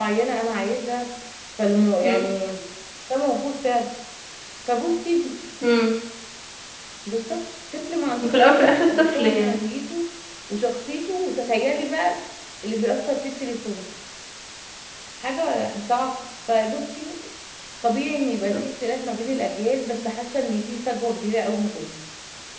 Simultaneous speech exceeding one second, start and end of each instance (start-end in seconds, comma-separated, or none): 8.2-9.6